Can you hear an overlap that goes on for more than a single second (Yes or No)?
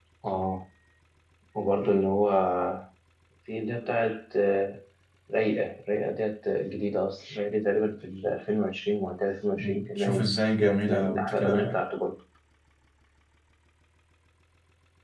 Yes